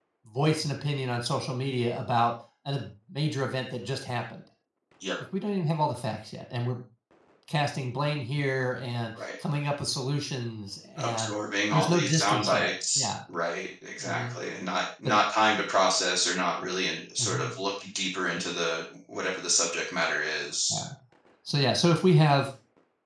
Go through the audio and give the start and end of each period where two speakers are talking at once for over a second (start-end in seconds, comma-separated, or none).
11.7-13.1